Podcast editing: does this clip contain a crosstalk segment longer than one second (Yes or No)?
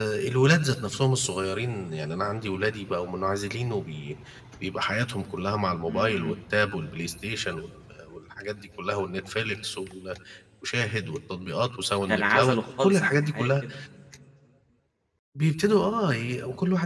Yes